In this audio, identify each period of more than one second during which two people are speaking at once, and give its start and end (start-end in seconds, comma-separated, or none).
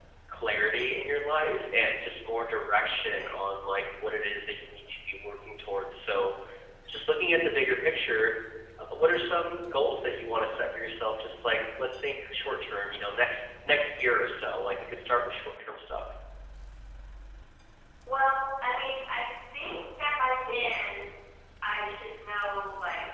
none